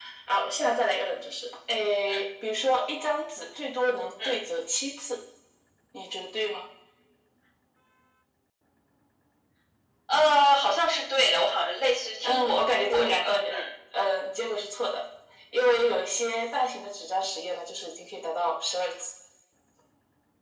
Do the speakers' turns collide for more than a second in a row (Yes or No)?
Yes